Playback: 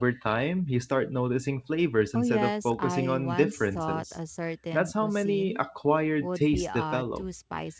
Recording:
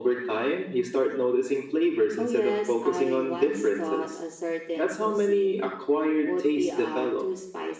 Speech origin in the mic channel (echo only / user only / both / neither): echo only